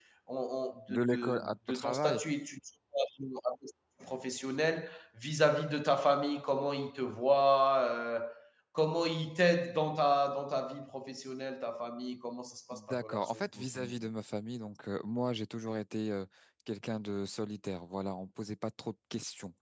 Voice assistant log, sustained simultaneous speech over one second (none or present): present